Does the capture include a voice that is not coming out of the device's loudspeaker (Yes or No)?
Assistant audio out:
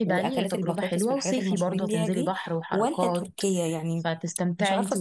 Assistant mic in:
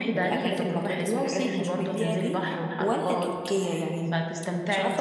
No